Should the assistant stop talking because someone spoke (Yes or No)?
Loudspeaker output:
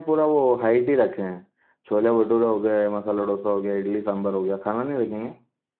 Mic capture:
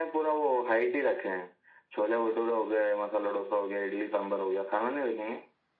No